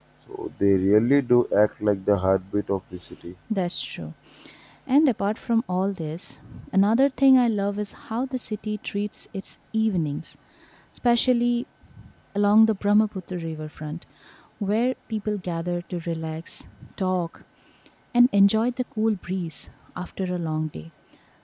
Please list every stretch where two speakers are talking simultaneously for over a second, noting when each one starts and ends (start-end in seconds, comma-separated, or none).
none